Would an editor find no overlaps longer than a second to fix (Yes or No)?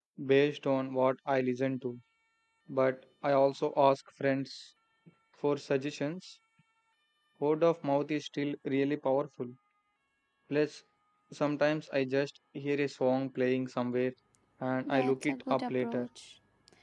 No